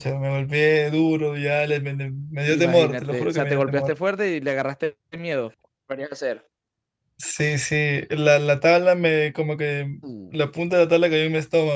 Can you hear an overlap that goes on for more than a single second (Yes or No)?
Yes